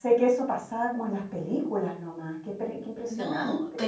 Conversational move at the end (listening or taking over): taking over